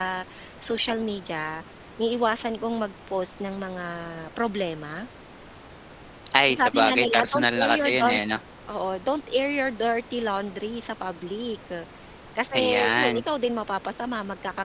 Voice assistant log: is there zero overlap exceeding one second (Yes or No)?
No